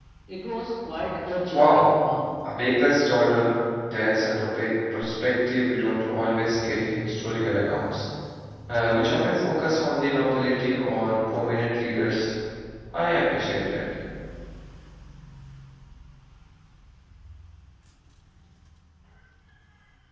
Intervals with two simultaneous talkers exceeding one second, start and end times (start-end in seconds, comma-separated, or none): none